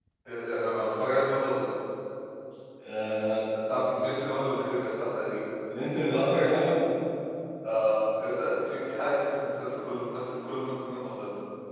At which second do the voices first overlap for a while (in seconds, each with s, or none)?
none